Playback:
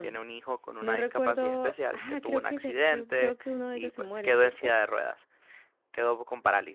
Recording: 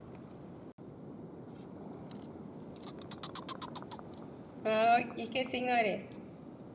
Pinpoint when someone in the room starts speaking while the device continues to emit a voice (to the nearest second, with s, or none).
5 s